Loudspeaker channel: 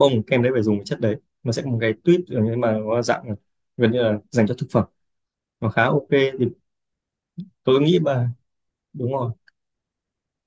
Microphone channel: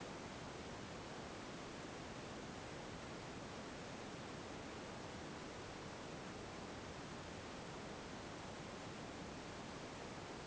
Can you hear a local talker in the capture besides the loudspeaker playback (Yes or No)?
No